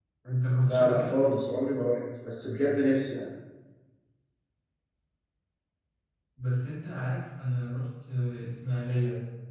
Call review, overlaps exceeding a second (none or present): none